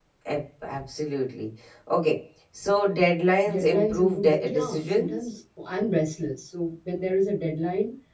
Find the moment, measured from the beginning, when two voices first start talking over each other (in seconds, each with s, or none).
3.4 s